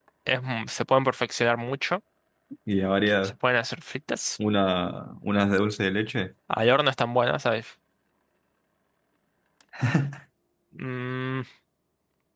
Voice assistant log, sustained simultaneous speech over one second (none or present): none